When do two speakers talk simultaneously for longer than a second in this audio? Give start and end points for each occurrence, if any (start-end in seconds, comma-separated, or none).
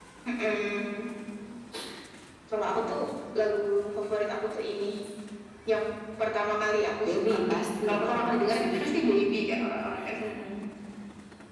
7.0-8.8